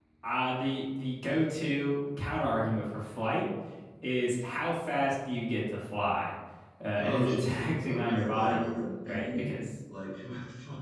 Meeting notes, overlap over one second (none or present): present